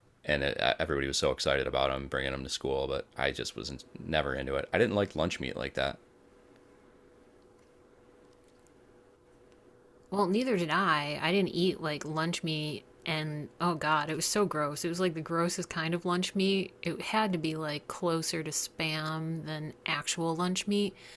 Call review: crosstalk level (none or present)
none